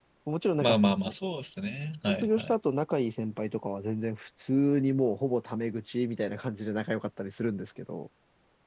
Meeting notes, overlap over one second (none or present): none